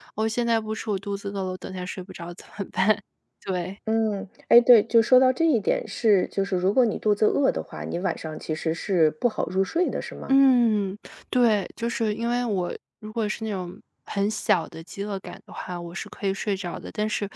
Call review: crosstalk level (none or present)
none